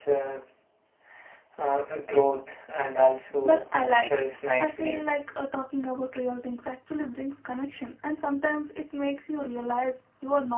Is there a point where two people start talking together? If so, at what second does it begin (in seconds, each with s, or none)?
3.4 s